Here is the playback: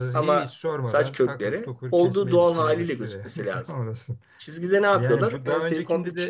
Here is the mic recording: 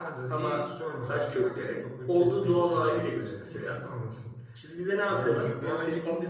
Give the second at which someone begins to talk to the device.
none

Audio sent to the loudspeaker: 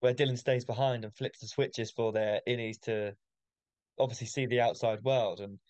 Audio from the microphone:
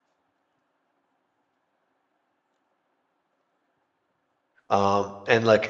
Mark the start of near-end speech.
5 s

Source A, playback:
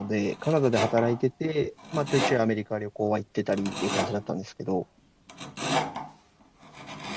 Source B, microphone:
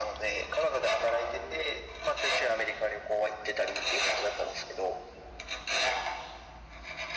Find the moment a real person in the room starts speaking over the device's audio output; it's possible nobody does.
none

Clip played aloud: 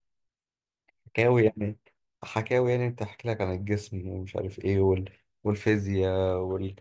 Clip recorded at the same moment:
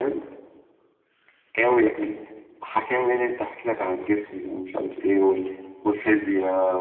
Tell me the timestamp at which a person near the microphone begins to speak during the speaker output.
none

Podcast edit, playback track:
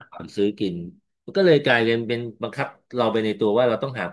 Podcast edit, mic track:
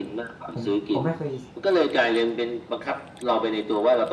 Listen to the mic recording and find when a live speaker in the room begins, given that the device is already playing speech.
0 s

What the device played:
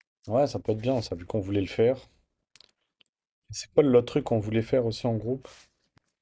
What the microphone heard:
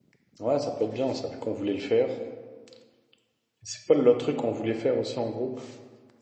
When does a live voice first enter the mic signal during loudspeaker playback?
none

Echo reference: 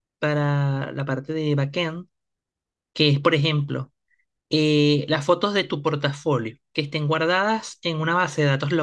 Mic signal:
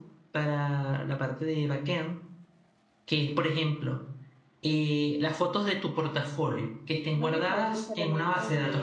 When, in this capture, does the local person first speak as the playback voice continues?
7 s

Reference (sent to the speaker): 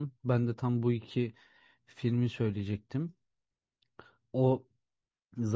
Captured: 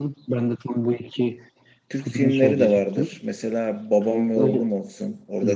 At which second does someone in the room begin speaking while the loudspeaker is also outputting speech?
2 s

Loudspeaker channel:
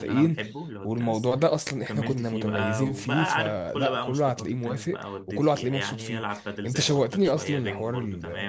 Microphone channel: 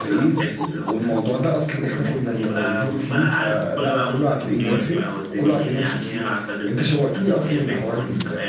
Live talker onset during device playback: 5 s

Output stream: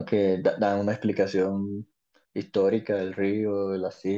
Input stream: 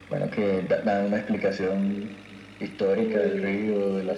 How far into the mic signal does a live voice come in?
3 s

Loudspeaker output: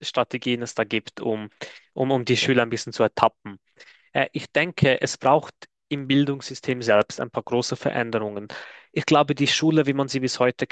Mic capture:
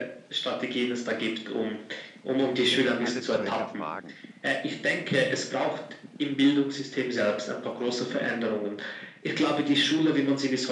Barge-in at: 3 s

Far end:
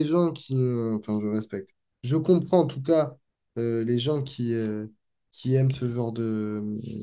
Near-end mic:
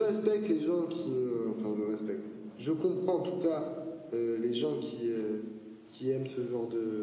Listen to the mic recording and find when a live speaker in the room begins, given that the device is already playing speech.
none

